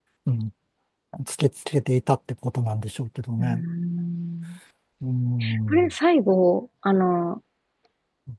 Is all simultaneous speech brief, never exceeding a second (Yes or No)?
Yes